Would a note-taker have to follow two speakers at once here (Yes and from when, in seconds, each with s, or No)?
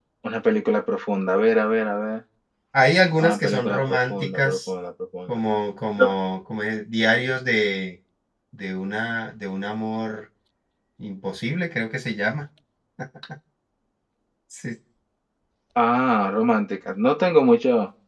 Yes, from 3.2 s